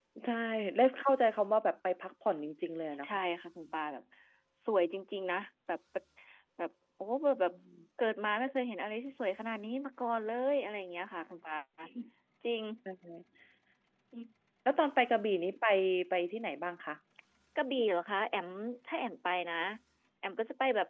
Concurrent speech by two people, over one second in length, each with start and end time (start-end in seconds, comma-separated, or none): none